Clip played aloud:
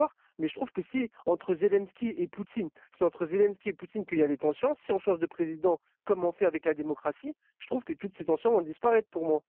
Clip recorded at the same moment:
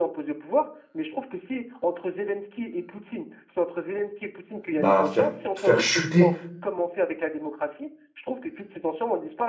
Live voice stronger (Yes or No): Yes